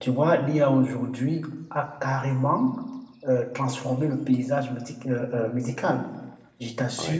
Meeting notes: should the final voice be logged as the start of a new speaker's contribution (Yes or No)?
No